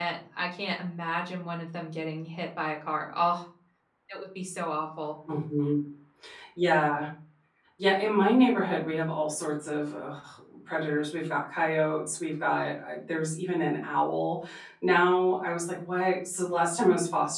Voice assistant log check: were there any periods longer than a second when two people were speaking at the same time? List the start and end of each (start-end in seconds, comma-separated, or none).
none